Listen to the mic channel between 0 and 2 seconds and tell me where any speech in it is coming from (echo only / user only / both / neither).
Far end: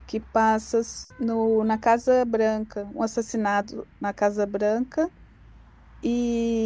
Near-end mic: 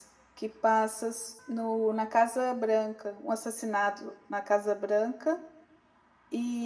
echo only